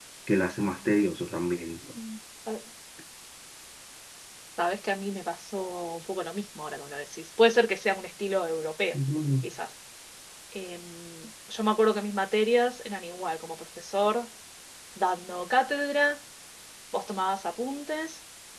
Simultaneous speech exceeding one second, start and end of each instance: none

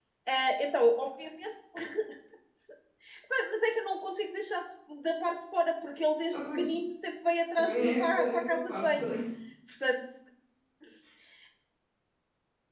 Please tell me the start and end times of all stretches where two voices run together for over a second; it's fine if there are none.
7.6-9.0

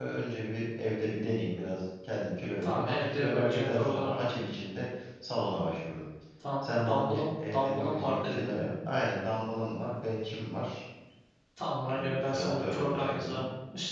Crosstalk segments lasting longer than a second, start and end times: 2.6-4.4, 6.6-8.7, 11.9-13.4

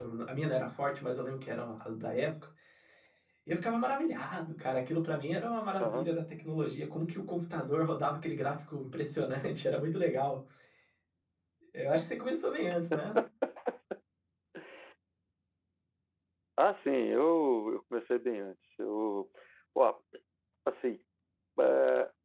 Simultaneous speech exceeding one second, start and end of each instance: none

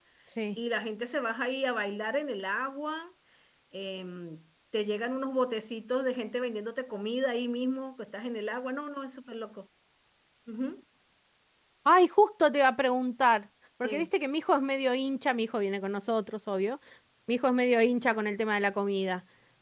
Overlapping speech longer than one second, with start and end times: none

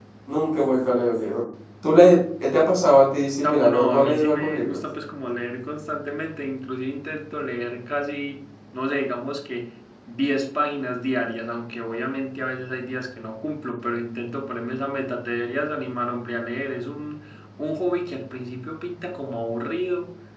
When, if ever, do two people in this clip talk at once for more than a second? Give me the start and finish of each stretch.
3.4-4.8

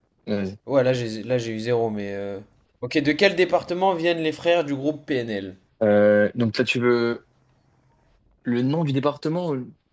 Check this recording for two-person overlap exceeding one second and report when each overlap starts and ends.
none

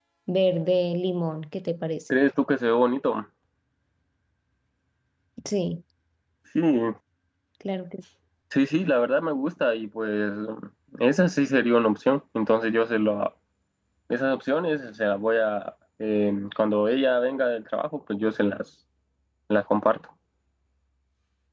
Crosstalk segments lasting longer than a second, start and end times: none

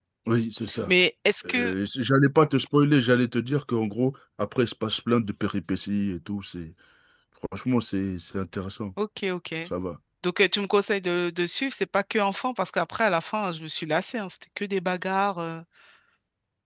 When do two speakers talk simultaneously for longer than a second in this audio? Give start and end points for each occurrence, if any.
none

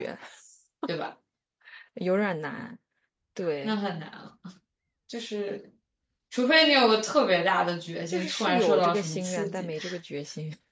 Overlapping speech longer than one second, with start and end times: 8.1-9.7

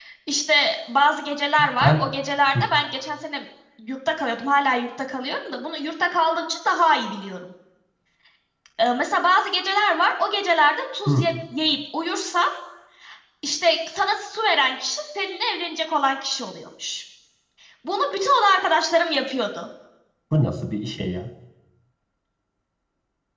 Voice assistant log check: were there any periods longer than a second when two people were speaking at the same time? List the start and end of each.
none

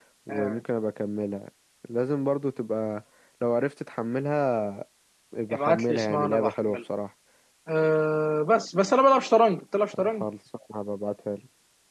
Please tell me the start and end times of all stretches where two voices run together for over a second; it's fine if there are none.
5.5-6.8

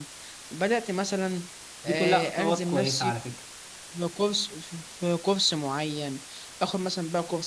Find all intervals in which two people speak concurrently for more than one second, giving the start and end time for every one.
1.9-3.1

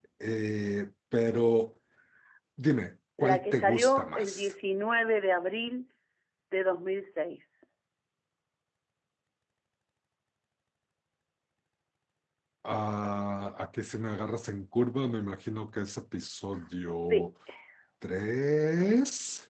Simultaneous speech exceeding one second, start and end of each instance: 3.2-4.5

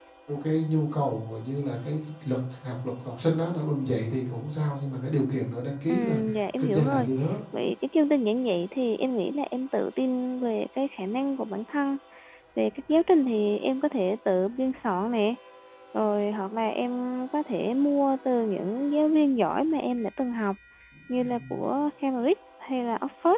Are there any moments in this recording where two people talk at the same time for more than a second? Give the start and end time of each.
none

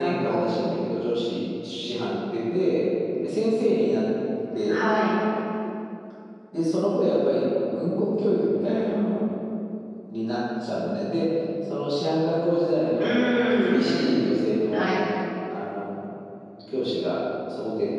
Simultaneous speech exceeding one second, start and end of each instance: 13.0-14.2

